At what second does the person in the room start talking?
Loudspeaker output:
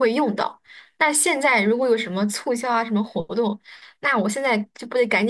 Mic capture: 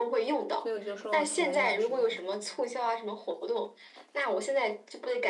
1 s

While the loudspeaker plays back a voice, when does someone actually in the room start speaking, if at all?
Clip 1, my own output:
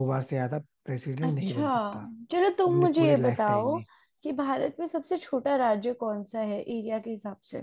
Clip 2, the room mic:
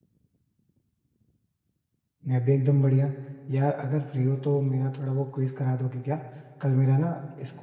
2 s

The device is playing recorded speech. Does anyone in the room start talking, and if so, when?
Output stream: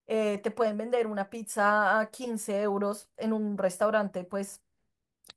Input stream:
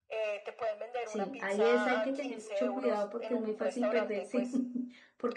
1 s

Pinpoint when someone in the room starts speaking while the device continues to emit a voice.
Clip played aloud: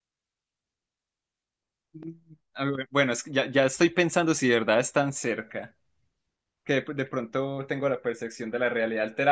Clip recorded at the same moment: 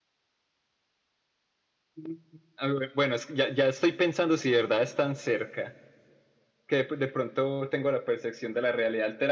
none

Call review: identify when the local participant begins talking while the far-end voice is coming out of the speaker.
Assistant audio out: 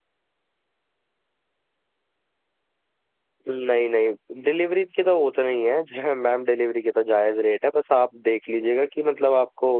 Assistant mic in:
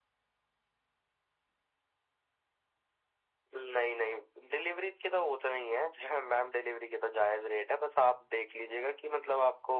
none

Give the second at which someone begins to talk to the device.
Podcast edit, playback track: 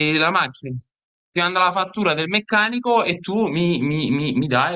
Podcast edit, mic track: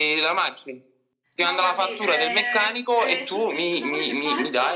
1 s

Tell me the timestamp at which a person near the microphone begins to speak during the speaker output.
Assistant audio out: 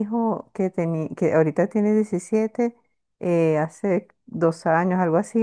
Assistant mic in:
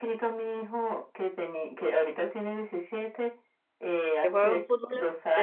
4 s

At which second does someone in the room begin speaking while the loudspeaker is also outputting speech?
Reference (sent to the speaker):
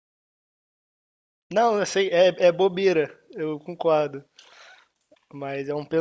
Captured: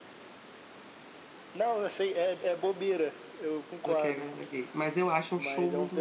4 s

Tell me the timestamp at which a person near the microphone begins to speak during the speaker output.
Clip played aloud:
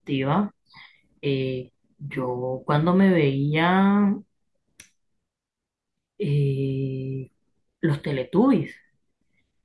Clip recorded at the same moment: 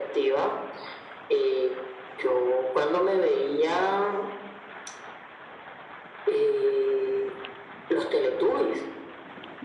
none

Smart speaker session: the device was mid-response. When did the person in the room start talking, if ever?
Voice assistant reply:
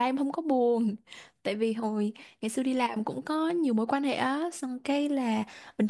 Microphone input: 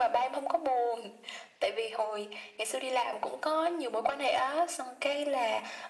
none

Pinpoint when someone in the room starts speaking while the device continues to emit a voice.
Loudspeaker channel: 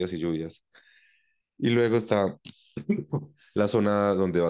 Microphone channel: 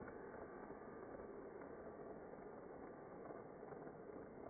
none

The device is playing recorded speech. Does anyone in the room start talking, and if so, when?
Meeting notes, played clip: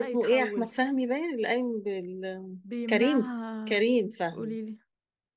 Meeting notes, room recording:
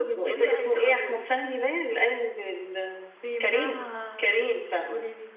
none

